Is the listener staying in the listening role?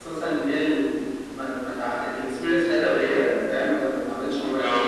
Yes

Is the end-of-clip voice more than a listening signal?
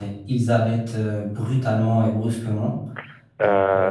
Yes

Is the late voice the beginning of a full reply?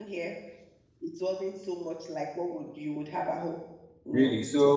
Yes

